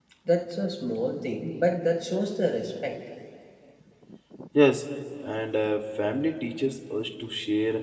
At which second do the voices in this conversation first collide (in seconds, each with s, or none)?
none